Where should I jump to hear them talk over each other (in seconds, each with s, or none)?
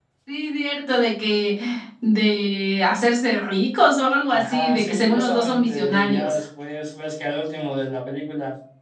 4.3 s